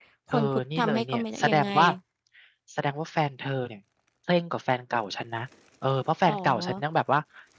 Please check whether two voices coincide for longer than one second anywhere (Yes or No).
Yes